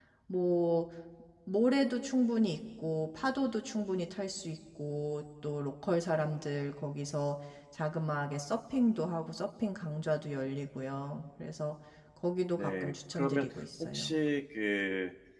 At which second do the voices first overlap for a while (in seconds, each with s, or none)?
12.5 s